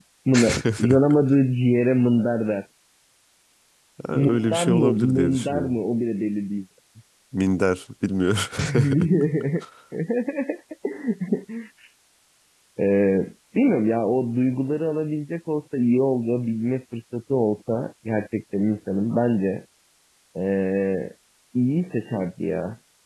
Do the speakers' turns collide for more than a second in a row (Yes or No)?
Yes